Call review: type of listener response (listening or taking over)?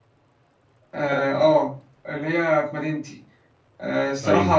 listening